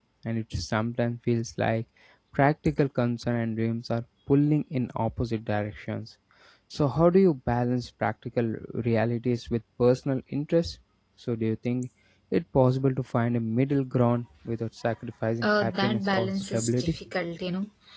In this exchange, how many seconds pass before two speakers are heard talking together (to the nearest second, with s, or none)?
15 s